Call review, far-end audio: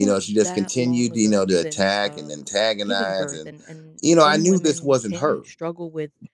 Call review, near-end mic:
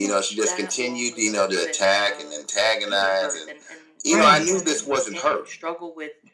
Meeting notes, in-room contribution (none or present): present